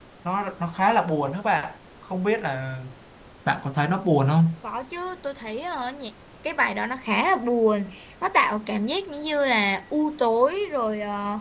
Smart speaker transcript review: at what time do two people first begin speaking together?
none

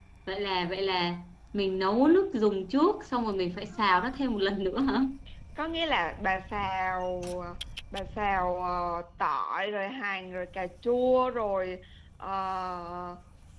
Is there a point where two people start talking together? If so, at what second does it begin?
none

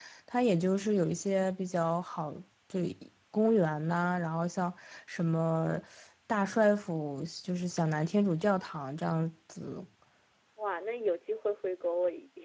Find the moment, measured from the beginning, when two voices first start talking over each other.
none

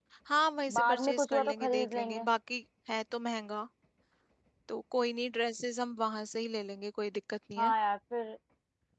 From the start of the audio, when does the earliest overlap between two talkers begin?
0.8 s

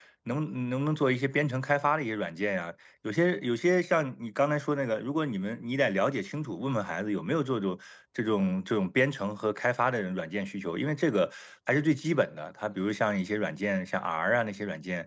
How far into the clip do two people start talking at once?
none

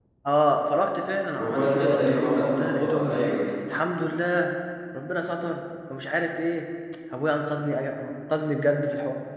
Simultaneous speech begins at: 1.3 s

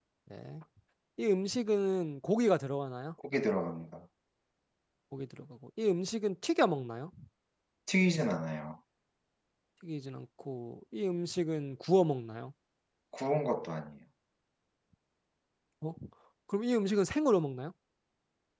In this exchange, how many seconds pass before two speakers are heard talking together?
none

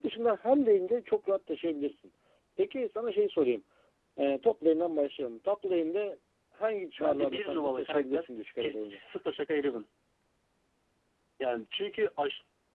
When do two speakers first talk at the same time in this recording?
7.0 s

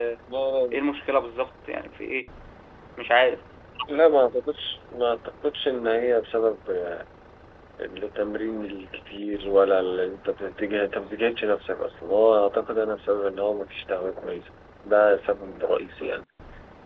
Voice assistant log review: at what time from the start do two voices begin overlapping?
none

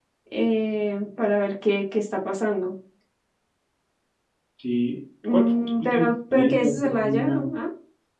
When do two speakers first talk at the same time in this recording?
5.2 s

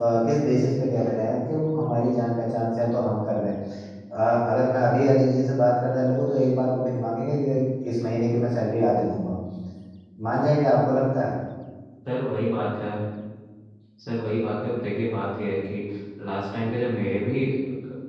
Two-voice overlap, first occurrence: none

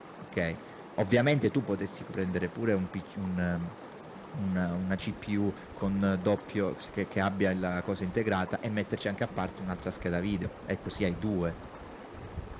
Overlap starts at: none

